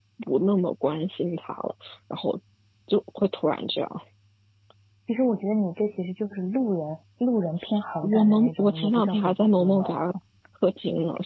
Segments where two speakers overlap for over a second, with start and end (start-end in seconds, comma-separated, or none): 8.0-10.0